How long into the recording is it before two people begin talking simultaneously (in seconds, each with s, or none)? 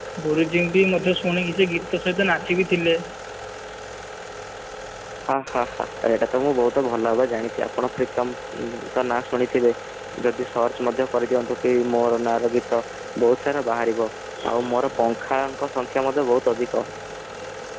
none